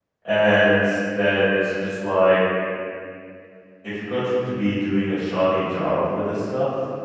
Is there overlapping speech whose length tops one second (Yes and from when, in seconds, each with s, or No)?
No